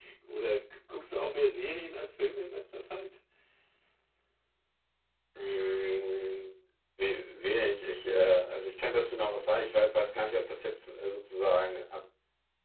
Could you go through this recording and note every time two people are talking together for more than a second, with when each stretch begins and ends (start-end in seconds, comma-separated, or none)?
none